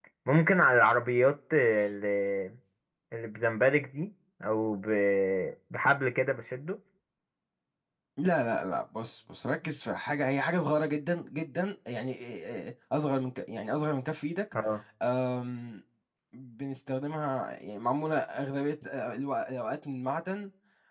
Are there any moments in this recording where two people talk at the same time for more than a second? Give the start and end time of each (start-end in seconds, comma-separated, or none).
none